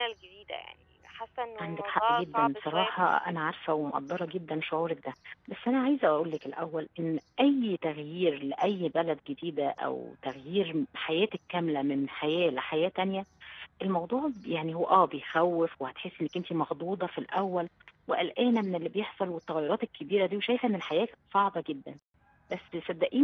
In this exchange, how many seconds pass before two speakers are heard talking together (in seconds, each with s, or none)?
1.6 s